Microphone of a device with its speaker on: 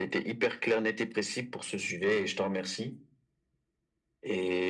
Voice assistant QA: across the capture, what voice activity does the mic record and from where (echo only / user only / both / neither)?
echo only